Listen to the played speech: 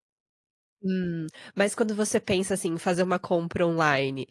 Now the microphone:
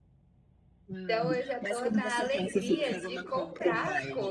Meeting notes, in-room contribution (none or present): present